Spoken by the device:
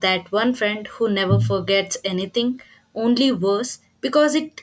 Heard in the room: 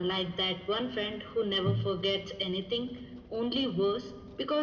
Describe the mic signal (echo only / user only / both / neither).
echo only